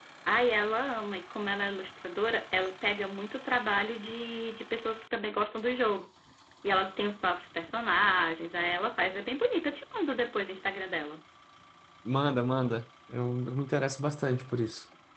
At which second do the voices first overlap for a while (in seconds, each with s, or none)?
none